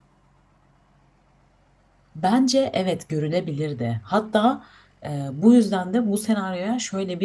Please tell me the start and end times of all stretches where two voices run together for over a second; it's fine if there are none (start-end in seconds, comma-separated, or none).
none